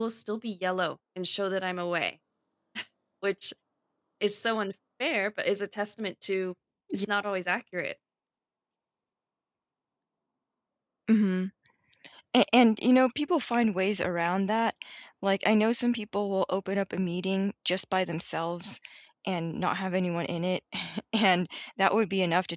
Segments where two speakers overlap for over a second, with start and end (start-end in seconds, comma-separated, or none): none